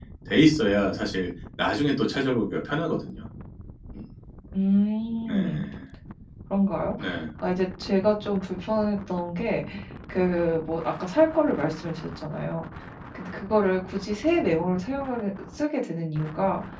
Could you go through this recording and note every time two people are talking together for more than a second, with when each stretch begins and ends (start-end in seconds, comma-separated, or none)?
none